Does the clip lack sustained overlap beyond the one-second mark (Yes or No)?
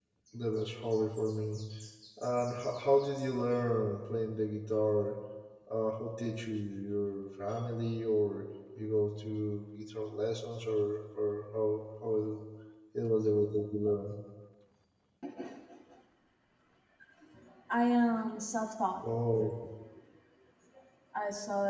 Yes